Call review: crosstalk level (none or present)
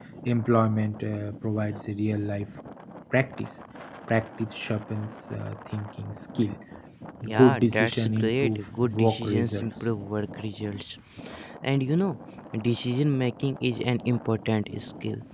present